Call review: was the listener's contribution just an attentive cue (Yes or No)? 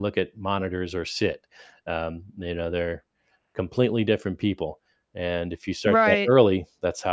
Yes